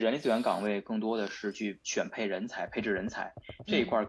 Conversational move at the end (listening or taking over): listening